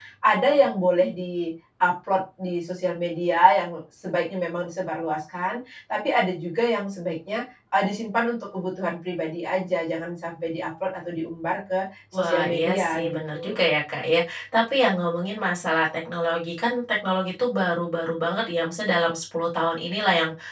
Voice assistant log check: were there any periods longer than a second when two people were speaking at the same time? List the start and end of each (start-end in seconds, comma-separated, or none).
12.1-13.6